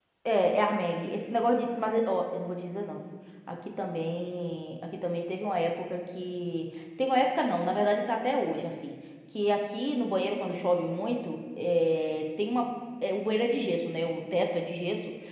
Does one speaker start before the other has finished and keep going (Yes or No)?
No